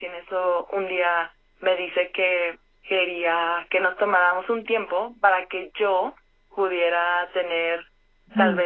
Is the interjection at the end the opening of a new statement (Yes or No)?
No